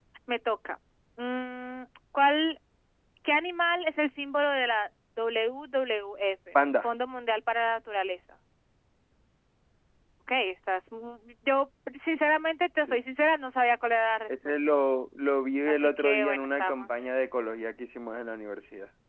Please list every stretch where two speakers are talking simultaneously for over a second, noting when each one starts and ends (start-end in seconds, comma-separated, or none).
15.7-16.9